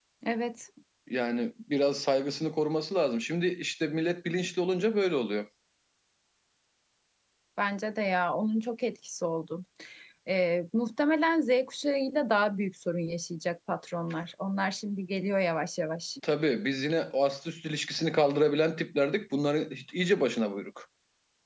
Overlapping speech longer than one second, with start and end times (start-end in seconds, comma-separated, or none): none